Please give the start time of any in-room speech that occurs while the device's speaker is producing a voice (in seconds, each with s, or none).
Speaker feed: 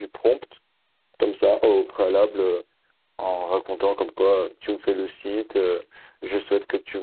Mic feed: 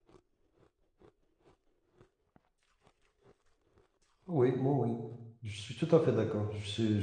4.3 s